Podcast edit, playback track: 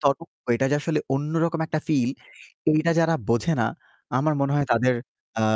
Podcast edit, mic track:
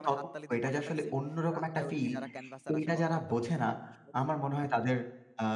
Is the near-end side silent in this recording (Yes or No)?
No